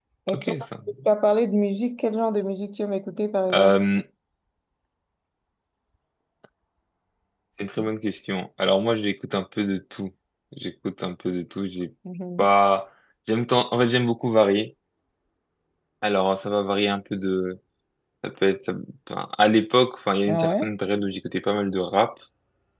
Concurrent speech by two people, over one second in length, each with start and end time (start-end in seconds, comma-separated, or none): none